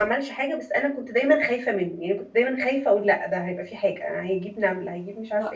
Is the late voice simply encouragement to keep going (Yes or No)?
No